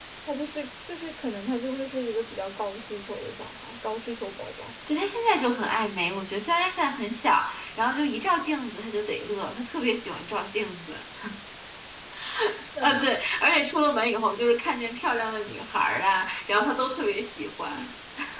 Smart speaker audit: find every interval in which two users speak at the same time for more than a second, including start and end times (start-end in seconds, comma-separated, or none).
none